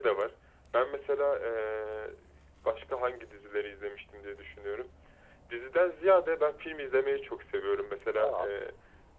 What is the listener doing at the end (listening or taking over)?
listening